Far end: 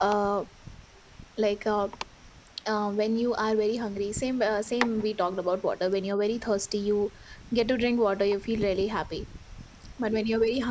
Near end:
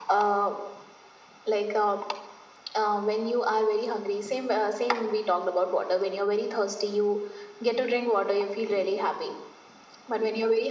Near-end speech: none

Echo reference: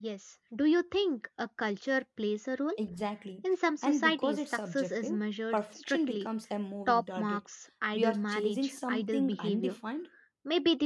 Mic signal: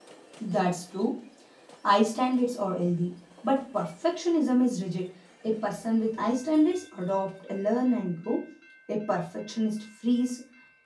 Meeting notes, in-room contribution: present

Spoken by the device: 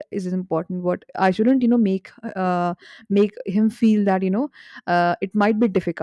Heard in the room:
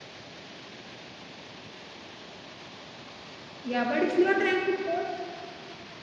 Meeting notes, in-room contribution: present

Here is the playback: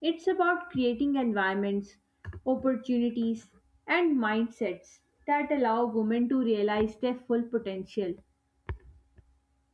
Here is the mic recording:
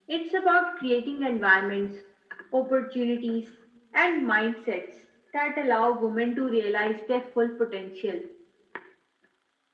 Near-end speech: none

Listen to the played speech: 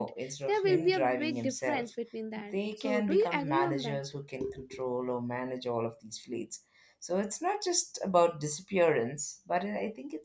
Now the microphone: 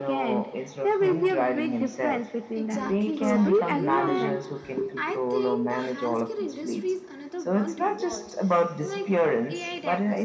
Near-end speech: present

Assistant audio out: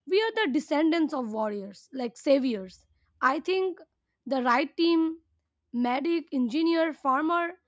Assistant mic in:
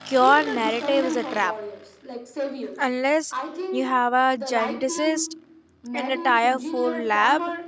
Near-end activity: present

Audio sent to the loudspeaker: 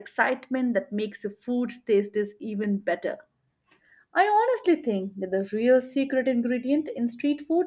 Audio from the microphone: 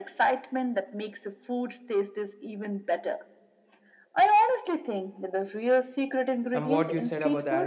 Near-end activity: present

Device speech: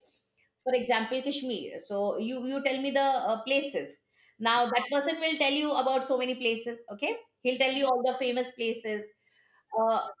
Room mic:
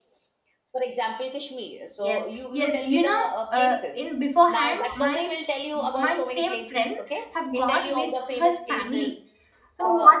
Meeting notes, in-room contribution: present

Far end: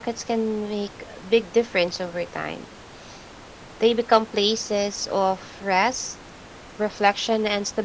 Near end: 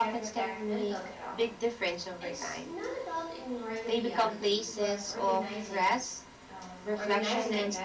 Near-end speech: present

